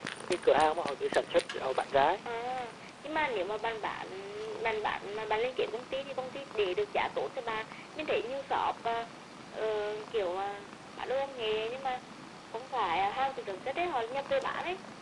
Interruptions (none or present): none